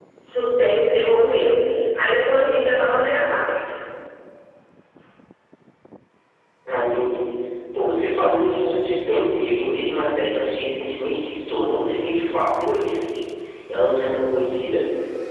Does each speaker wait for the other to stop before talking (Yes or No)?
Yes